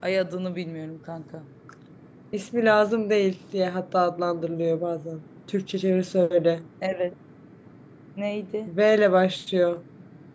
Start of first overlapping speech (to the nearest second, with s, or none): none